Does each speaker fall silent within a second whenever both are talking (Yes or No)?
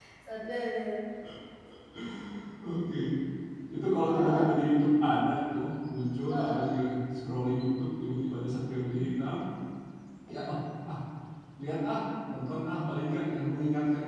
Yes